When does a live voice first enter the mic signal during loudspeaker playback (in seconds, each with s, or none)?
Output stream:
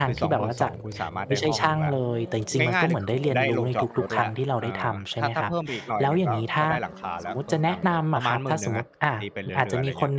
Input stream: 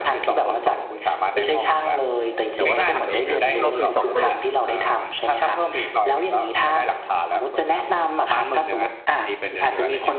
2.5 s